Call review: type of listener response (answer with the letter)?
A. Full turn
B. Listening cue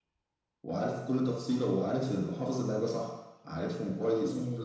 B